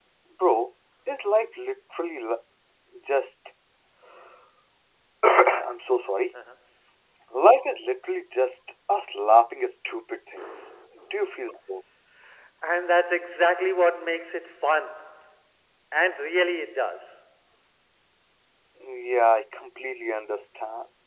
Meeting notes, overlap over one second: none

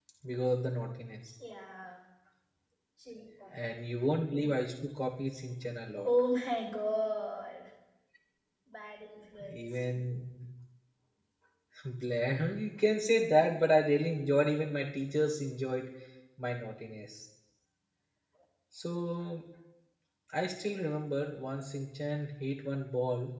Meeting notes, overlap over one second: none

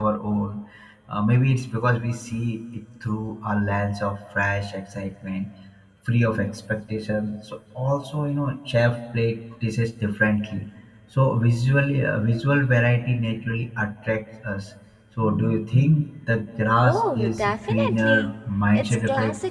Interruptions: present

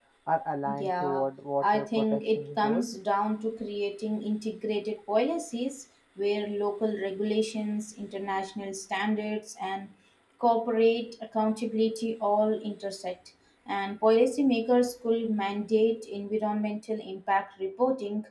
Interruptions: present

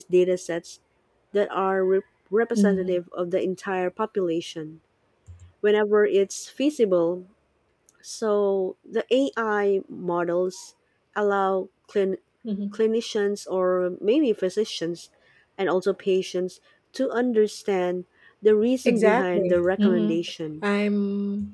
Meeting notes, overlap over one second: present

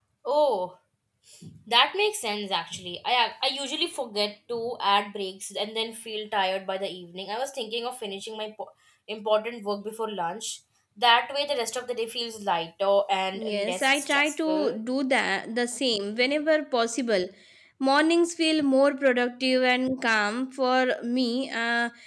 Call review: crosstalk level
present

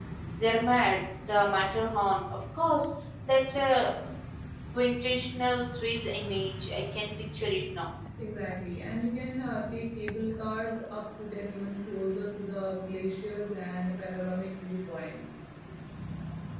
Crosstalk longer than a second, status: none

